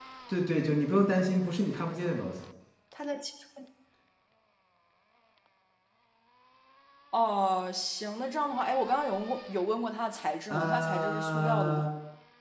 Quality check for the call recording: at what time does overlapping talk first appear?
10.5 s

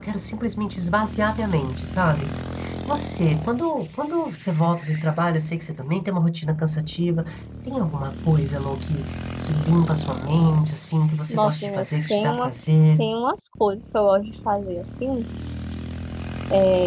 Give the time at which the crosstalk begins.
11.3 s

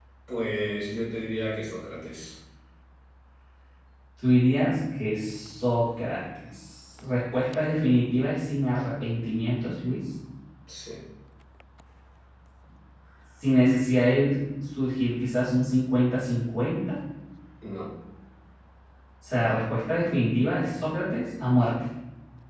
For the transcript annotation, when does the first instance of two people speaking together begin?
none

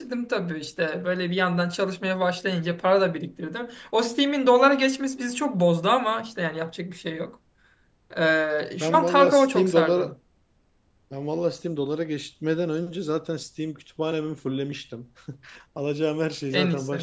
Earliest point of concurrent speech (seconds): 8.8 s

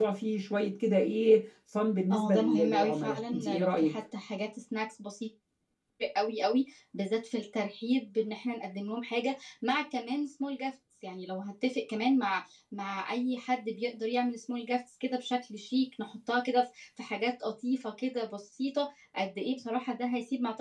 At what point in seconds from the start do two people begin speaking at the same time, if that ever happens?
2.1 s

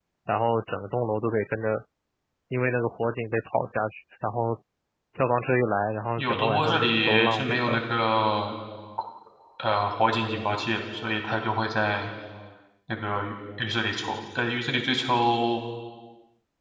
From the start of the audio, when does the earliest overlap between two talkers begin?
6.2 s

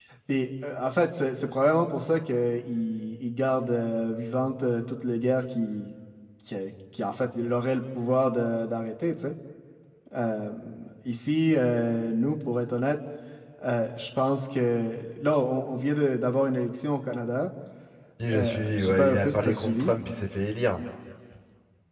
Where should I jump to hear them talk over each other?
18.3 s

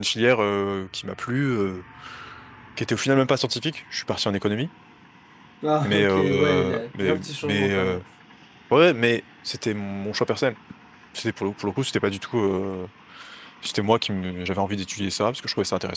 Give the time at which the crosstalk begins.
5.8 s

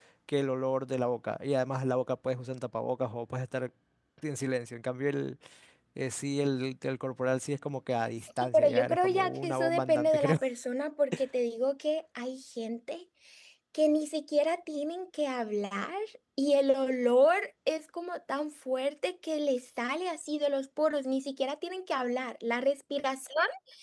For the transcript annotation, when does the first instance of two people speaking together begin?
8.2 s

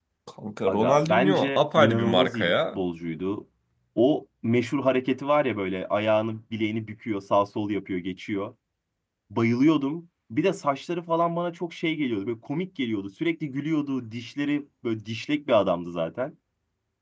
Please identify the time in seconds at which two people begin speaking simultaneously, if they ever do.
0.7 s

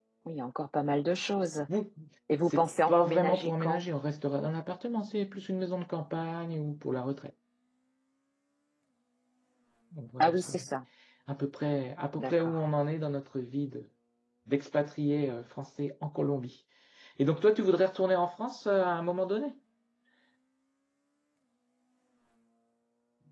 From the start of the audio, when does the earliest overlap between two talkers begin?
2.5 s

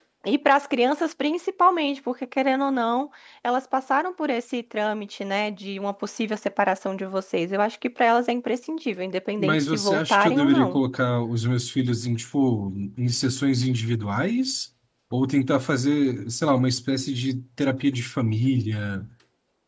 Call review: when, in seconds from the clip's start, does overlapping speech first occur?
9.4 s

